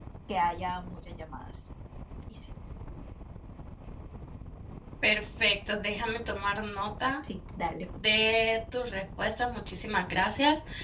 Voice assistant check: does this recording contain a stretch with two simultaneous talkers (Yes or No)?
No